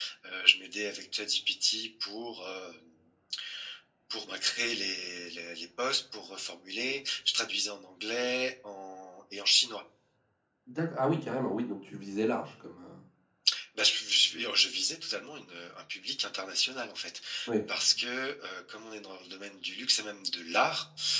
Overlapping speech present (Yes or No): No